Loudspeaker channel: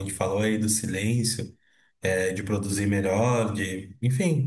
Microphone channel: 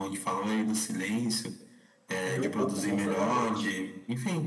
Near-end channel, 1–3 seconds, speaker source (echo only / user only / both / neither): both